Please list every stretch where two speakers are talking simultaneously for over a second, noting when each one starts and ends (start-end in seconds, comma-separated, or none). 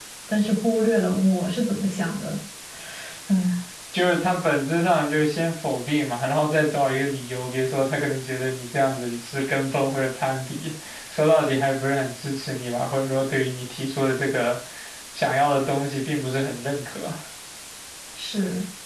none